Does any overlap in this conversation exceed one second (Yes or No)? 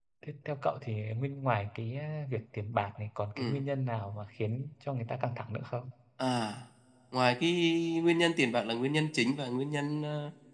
No